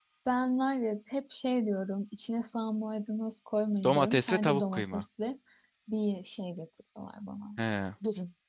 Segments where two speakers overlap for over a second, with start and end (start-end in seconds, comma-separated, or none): 3.8-5.0